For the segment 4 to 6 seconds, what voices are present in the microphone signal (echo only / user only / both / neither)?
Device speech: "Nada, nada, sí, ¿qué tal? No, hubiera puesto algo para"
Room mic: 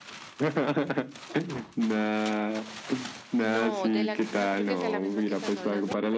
both